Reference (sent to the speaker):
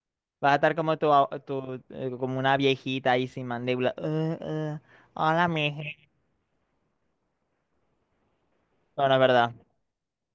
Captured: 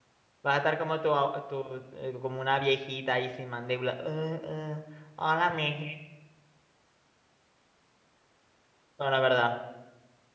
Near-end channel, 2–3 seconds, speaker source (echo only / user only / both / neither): echo only